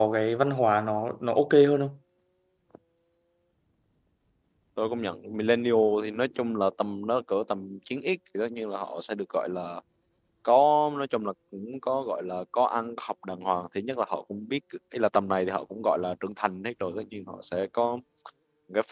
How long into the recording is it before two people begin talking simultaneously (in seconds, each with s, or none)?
none